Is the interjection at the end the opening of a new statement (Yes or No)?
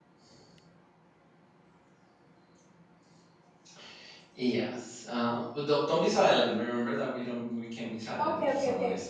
Yes